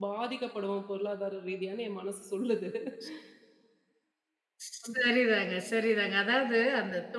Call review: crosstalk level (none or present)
none